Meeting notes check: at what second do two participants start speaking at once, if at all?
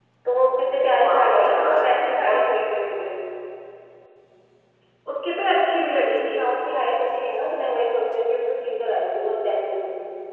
1 s

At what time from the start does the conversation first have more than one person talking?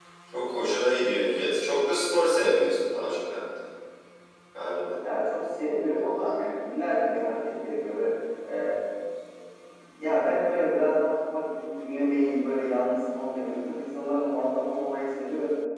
none

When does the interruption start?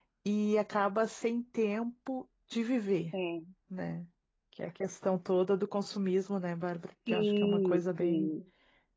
7 s

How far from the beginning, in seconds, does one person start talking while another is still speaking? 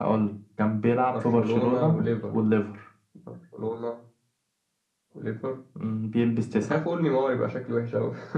1 s

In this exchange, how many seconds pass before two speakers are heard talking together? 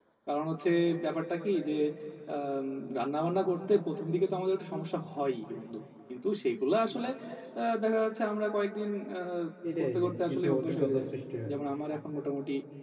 10 s

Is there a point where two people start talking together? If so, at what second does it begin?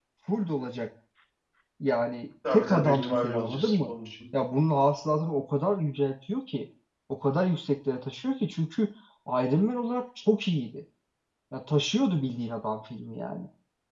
2 s

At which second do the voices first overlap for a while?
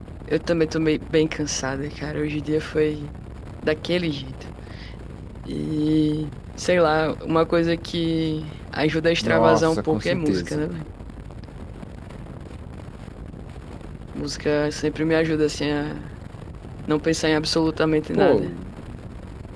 9 s

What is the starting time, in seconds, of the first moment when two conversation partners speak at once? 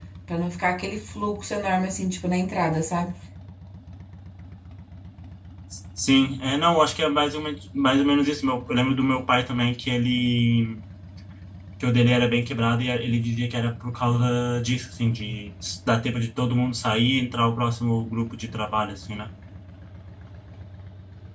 none

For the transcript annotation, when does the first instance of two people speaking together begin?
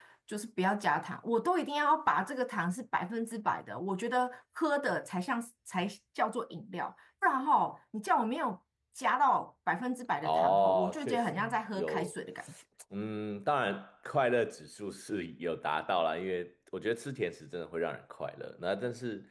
10 s

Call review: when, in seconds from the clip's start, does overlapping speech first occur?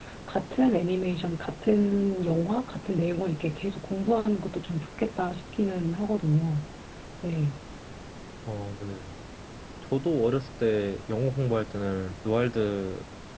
none

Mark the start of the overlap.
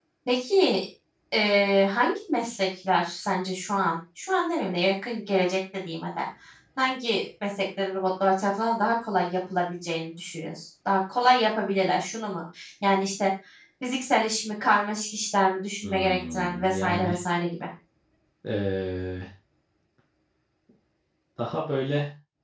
16 s

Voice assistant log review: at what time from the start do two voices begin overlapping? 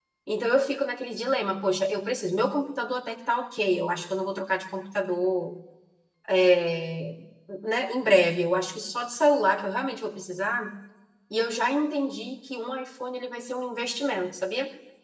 none

